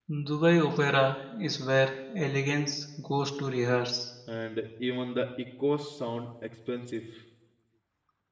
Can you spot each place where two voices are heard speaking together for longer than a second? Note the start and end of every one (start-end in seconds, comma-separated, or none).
none